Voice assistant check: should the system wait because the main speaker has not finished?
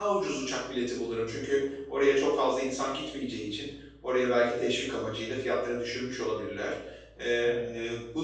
Yes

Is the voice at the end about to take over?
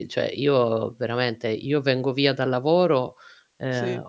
No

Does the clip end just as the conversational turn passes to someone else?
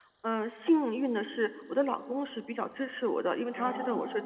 No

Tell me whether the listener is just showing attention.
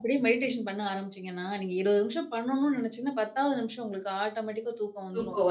Yes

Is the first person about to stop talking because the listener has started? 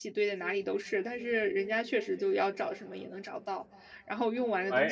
No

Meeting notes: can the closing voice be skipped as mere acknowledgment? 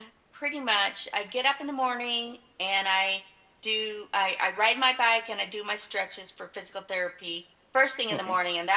Yes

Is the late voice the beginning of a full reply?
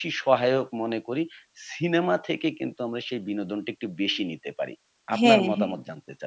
Yes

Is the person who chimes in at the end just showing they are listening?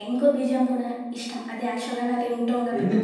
No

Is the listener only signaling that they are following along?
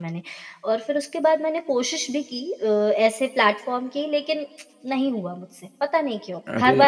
No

